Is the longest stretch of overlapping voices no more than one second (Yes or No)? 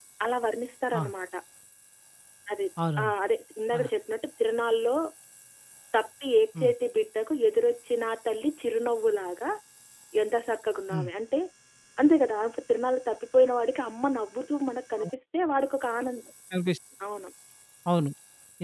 Yes